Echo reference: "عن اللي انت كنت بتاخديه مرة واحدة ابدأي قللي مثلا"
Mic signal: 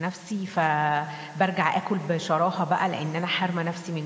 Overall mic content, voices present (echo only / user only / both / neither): user only